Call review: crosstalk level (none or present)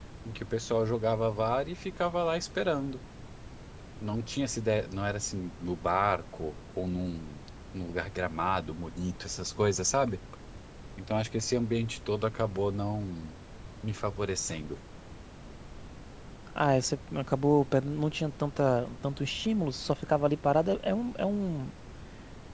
none